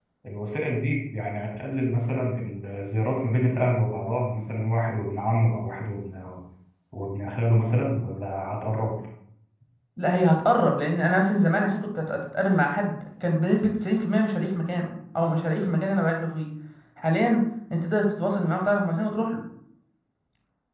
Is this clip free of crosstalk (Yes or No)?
Yes